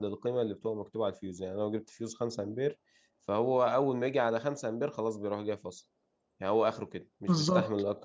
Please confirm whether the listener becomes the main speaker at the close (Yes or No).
Yes